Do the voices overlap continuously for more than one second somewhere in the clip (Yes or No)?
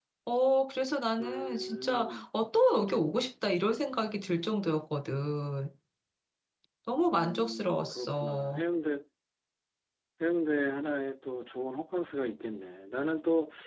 Yes